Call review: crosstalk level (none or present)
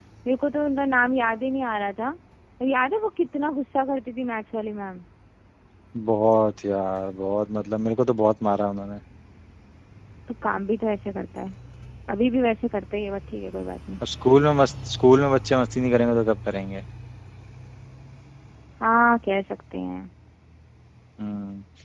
none